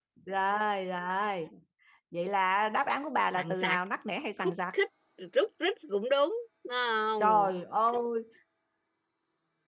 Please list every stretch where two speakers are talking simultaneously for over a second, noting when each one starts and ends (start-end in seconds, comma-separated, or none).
none